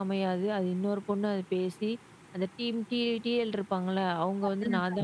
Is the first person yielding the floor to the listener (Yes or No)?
No